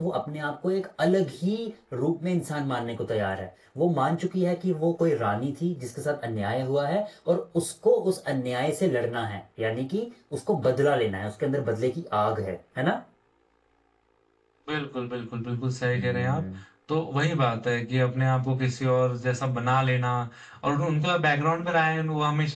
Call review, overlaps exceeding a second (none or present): none